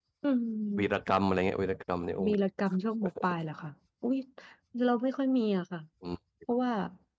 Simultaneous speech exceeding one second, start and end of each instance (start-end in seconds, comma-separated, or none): none